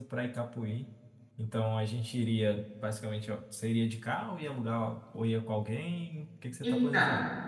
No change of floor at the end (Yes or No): No